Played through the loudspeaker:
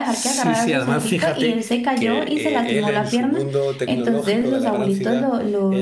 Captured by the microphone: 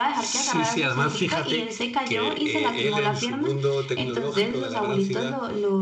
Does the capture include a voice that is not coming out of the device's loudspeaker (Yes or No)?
No